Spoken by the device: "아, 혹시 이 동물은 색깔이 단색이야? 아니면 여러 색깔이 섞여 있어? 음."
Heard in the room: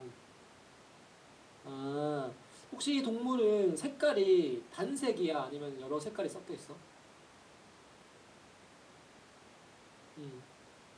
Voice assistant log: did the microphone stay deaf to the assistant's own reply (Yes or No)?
No